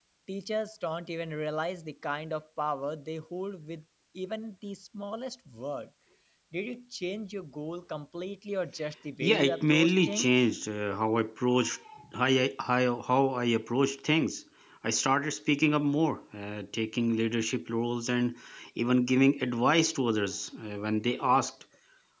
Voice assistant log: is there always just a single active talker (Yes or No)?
No